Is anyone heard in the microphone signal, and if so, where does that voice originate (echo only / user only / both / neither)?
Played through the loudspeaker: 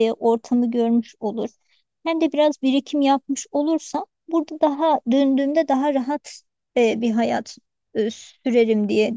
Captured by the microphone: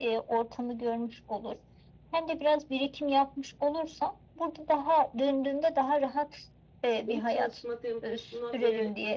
both